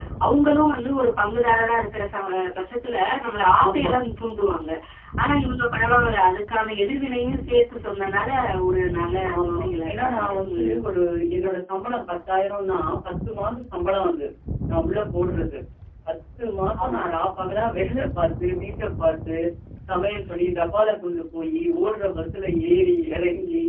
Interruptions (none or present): present